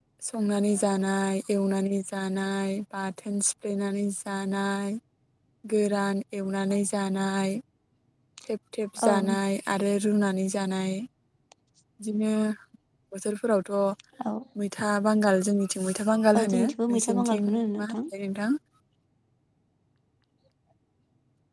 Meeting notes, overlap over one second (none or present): present